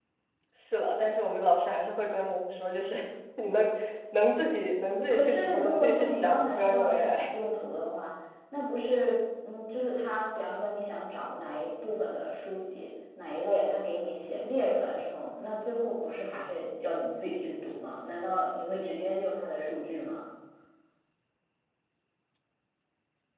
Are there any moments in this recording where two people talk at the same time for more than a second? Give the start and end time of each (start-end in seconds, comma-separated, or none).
5.1-7.3